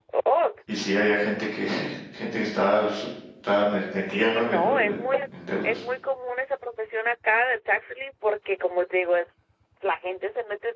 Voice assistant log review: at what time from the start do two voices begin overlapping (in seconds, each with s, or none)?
3.9 s